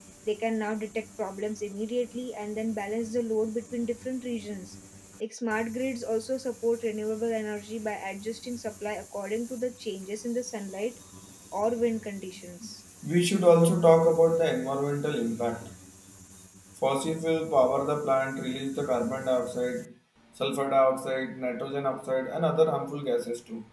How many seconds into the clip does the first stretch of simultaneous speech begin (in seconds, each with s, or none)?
none